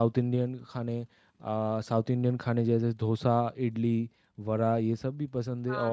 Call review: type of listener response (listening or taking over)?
listening